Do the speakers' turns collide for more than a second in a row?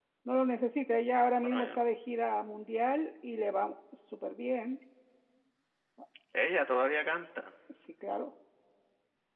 No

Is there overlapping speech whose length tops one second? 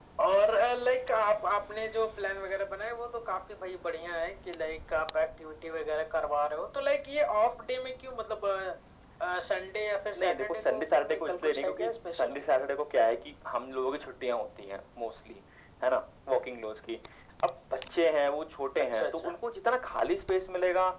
Yes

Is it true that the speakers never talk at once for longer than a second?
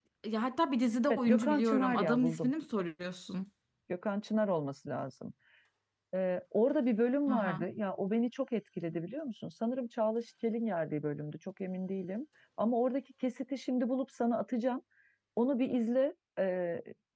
No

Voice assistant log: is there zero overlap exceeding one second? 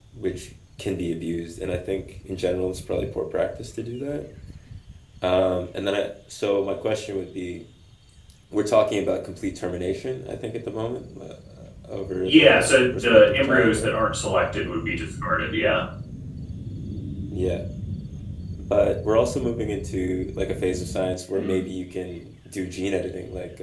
No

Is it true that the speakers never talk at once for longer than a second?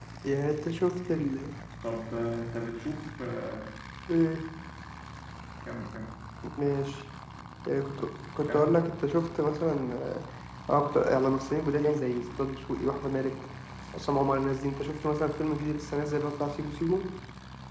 Yes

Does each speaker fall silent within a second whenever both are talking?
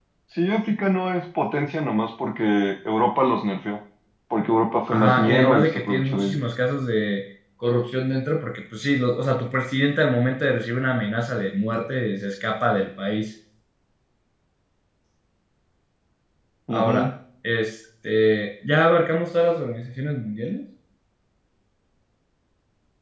No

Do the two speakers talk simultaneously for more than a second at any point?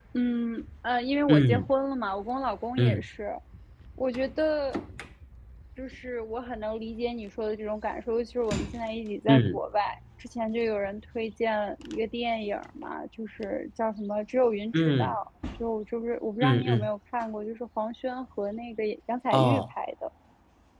No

